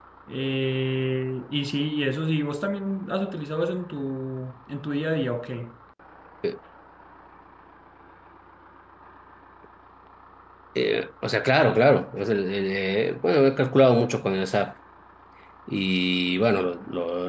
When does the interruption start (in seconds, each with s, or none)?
none